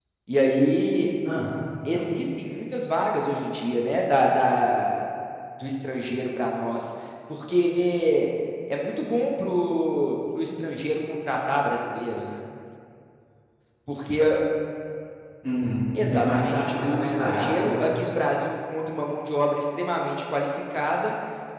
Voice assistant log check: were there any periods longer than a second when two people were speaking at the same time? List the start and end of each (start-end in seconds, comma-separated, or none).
16.1-17.8